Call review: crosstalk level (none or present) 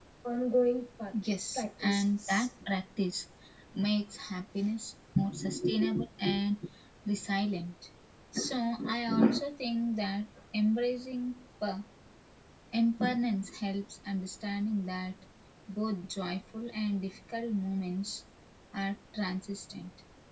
present